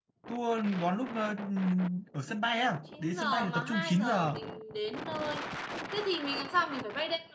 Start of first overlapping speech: 3.0 s

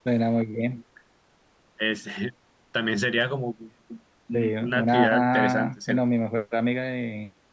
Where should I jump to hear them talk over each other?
4.3 s

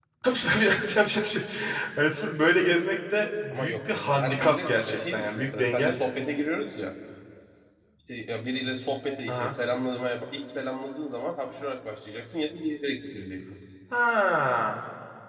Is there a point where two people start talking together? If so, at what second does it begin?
3.5 s

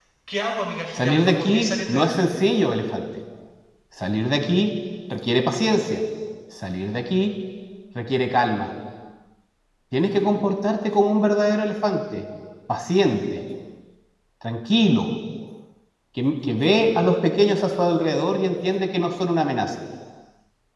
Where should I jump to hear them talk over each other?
0.9 s

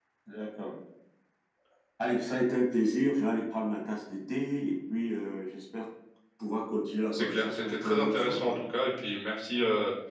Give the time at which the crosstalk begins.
7.1 s

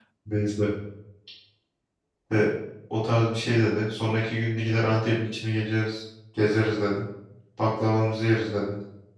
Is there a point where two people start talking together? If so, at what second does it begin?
none

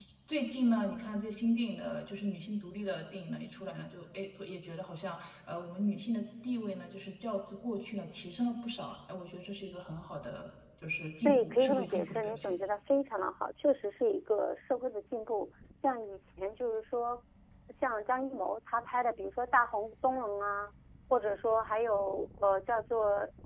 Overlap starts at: 11.2 s

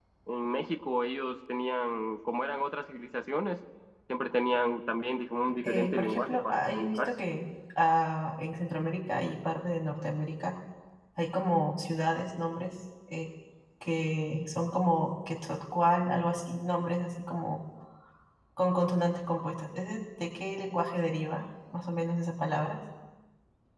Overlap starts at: 5.6 s

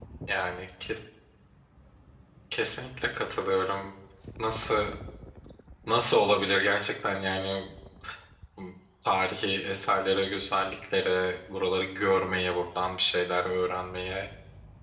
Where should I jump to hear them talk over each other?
none

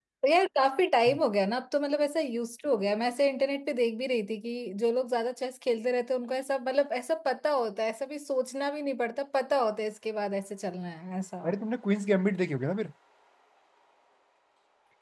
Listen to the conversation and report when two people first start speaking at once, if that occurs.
none

